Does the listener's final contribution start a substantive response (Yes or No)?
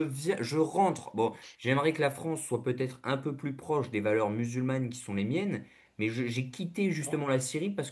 No